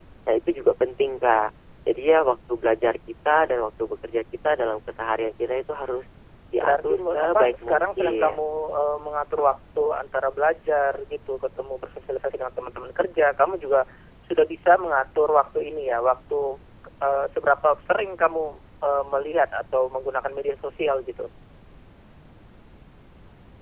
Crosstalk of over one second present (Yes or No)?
Yes